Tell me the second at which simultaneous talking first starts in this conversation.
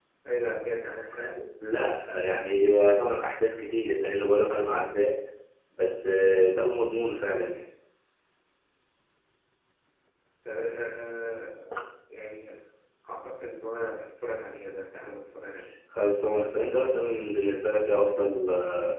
none

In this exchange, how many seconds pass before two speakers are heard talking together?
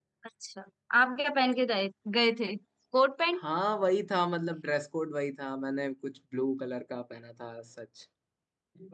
none

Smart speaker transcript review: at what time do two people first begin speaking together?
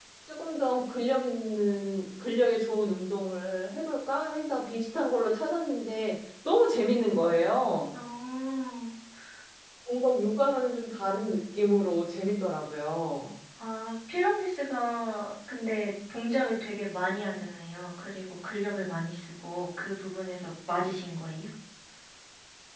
none

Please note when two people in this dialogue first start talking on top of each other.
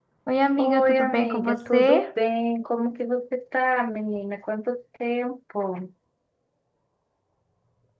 0.6 s

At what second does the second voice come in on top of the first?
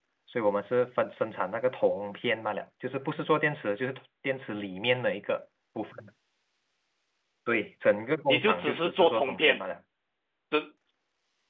8.3 s

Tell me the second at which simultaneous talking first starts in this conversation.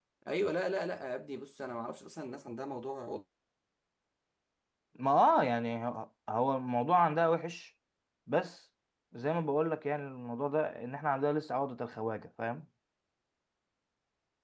none

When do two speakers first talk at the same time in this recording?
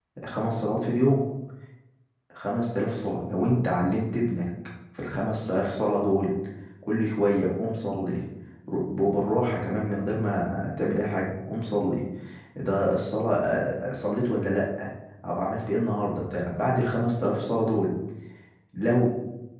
none

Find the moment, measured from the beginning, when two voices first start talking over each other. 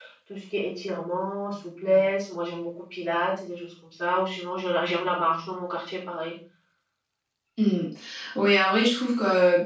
none

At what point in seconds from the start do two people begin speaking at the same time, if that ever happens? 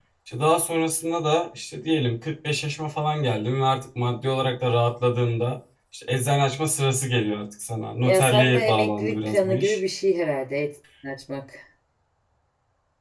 8.0 s

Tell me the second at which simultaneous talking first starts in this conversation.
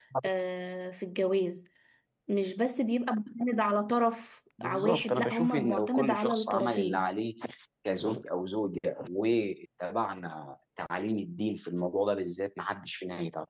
4.6 s

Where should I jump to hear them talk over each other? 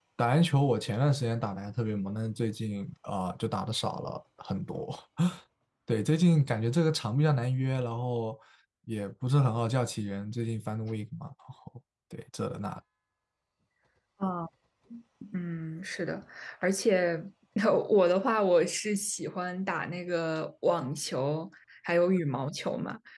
none

